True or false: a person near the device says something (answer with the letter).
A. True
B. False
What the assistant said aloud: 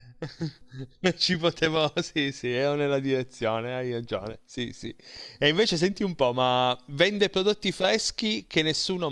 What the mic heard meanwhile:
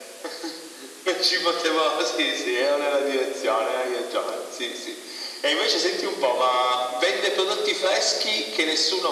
B